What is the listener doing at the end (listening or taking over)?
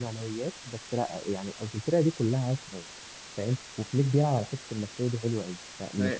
listening